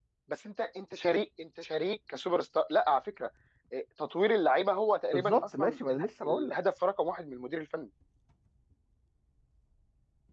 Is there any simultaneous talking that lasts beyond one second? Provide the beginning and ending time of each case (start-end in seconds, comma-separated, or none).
5.1-6.5